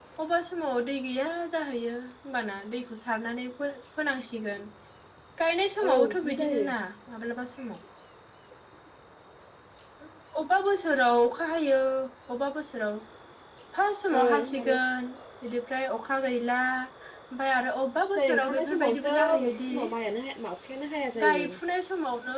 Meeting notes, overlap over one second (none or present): present